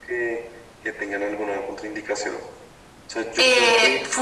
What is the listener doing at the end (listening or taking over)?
taking over